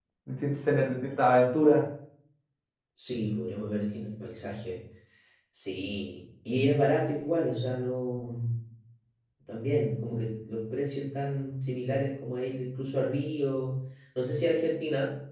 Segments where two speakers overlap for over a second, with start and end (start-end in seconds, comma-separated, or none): none